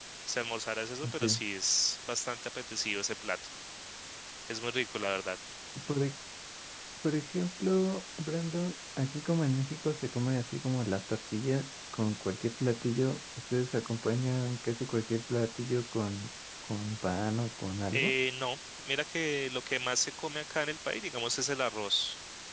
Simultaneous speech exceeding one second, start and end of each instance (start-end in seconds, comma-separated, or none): none